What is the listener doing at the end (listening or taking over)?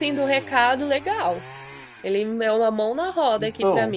listening